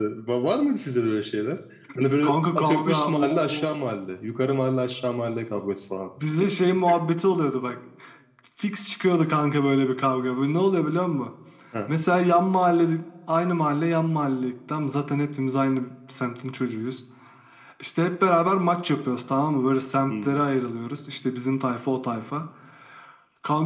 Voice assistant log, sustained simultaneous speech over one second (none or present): present